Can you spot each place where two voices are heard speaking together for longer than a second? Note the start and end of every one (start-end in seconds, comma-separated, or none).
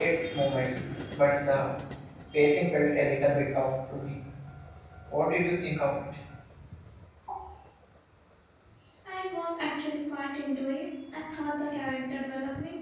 none